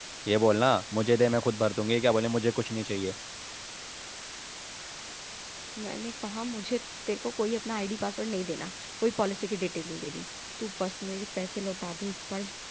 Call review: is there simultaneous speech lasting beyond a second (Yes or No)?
No